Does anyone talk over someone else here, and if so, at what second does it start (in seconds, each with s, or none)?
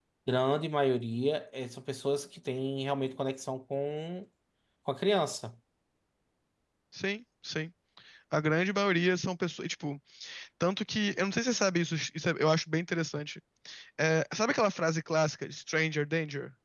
none